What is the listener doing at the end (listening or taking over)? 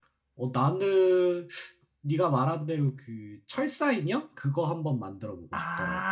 taking over